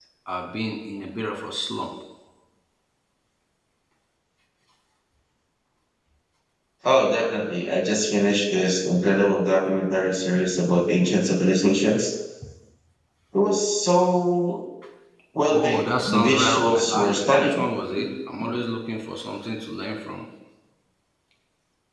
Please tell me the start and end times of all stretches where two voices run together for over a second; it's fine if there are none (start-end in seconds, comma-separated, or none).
15.5-17.6